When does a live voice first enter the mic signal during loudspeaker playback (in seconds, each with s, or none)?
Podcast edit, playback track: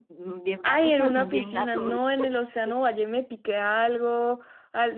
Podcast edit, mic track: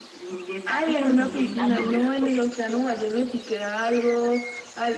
1.6 s